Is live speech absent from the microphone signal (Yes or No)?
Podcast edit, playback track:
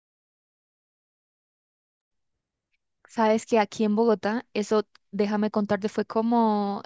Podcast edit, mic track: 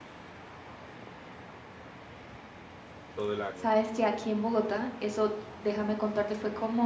No